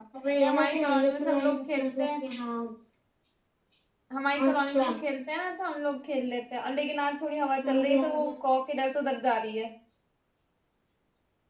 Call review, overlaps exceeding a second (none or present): present